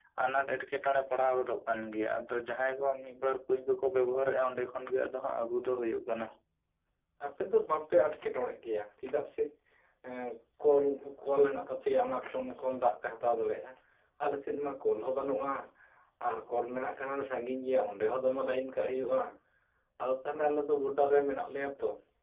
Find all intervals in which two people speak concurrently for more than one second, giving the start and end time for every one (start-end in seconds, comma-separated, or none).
none